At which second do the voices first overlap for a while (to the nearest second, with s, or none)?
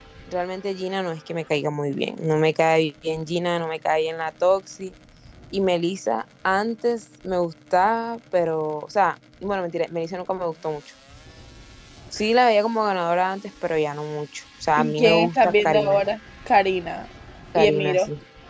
15 s